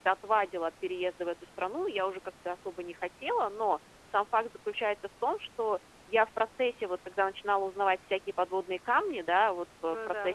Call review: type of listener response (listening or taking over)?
listening